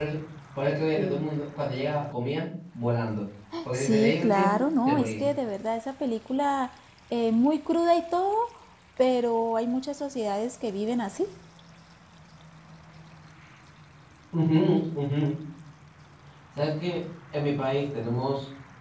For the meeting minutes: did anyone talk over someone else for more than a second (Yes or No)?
Yes